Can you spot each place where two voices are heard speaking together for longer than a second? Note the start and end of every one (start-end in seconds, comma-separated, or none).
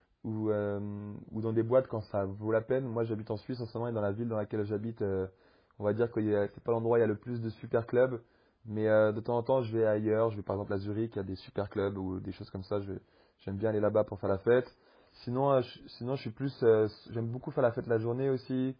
none